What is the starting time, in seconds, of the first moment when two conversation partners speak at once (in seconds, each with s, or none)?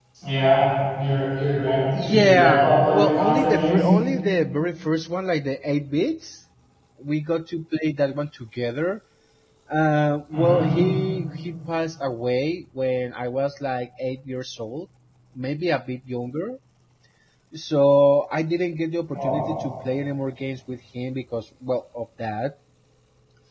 1.9 s